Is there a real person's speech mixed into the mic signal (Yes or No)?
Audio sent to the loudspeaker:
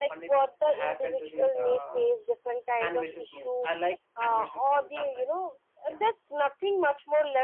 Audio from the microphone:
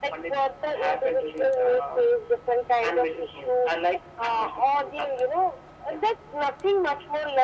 No